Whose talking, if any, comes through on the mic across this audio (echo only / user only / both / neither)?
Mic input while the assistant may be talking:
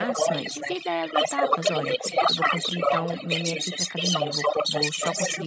both